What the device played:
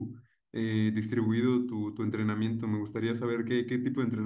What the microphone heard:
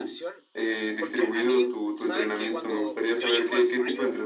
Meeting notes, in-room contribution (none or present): present